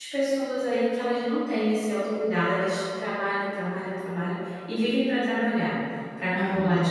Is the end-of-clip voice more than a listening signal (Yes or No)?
No